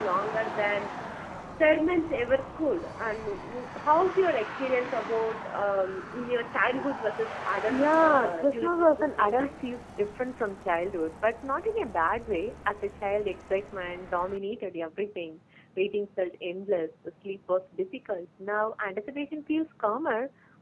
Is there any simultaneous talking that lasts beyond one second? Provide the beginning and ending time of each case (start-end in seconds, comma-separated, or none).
7.7-9.5